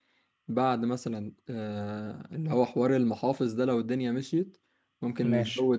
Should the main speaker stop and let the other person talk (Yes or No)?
No